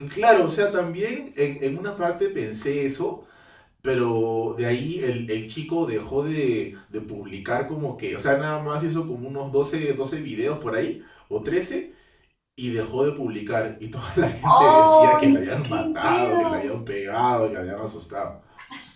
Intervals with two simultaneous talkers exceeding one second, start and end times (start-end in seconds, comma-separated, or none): 14.4-16.7